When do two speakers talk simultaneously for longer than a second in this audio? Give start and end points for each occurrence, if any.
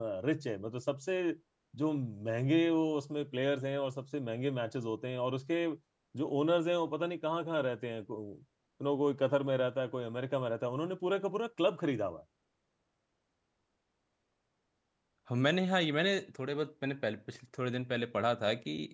none

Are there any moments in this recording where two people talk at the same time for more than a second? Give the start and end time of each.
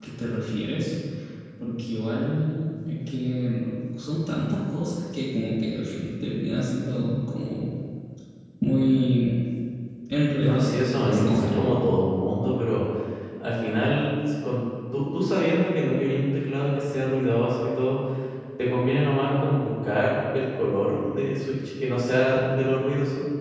10.4-11.7

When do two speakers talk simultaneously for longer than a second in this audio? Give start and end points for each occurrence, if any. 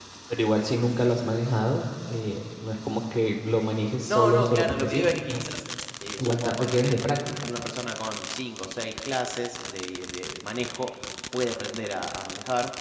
4.1-5.4, 6.2-7.5

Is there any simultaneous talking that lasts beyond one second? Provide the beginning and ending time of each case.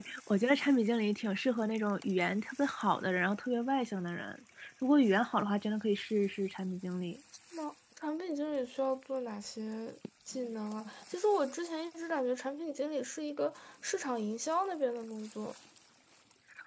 none

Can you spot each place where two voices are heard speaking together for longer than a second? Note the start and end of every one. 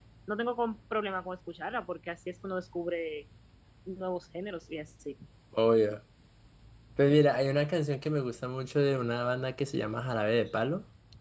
none

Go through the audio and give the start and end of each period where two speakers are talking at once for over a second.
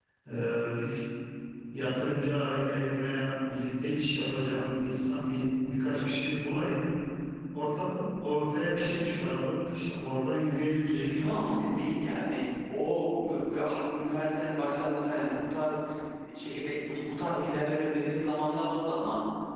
10.4-11.8

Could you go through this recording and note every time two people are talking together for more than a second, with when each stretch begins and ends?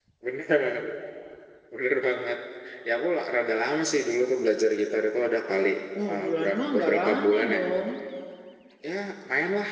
6.1-7.6

